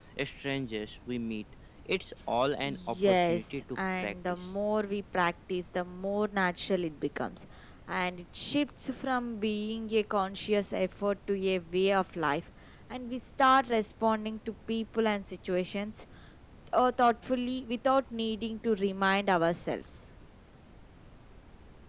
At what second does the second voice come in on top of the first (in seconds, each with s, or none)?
2.7 s